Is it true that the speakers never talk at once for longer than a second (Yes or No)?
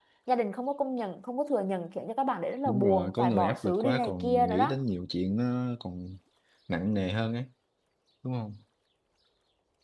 No